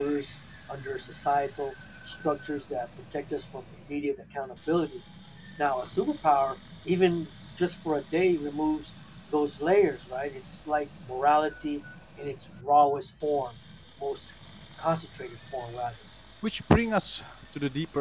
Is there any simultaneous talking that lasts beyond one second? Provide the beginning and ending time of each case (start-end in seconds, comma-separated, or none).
none